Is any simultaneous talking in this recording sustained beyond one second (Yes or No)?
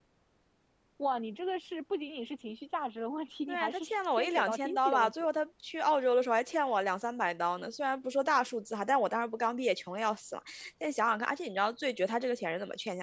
Yes